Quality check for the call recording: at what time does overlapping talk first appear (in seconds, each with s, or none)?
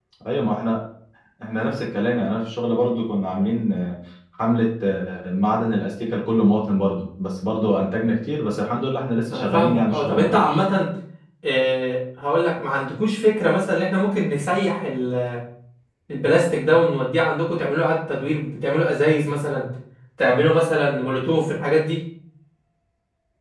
9.3 s